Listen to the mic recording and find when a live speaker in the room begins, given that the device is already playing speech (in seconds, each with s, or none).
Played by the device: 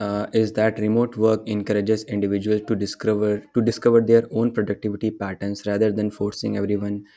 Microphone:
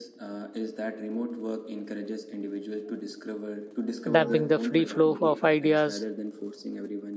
4.1 s